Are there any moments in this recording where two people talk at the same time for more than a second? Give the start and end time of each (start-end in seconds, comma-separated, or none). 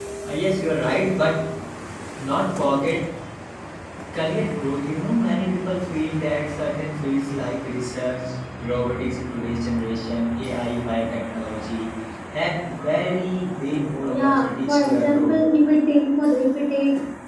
14.1-15.4